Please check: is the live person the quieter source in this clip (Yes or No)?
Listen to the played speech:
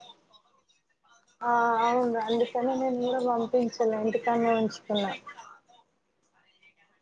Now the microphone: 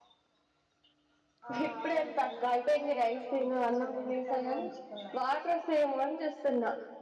No